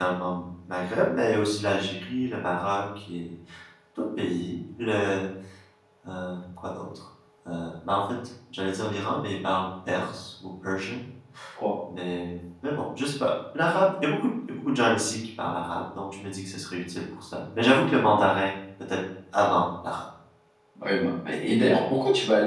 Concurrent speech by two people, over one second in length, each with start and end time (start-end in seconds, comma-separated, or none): none